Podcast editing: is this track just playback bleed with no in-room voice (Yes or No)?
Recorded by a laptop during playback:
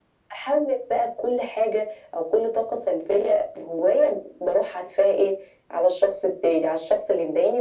Yes